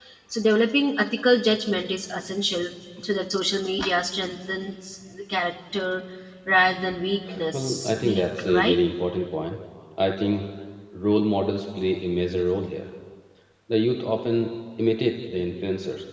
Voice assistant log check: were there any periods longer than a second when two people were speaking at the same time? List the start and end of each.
7.5-8.8

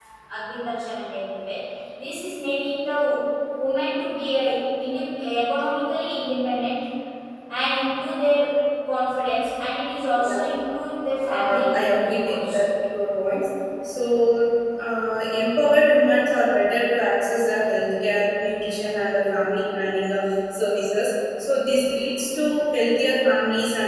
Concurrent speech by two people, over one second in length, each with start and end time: 11.3-12.6

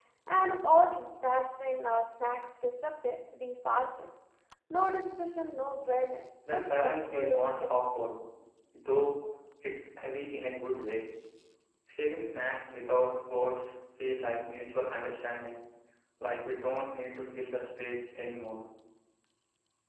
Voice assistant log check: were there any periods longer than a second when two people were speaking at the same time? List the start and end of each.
6.5-8.1

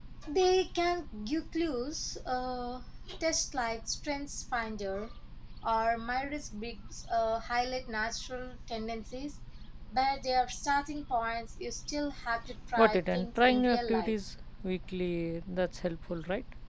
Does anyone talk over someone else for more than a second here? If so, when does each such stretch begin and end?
12.8-14.1

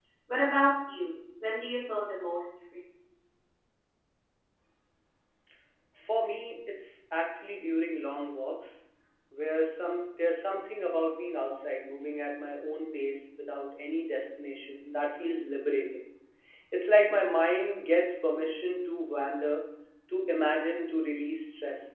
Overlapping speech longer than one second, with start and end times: none

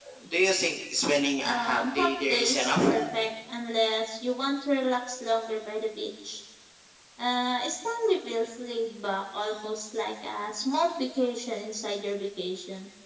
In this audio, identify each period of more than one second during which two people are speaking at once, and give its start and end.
1.4-2.9

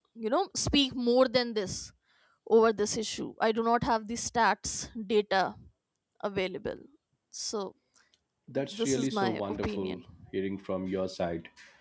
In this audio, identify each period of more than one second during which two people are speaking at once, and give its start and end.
8.7-10.0

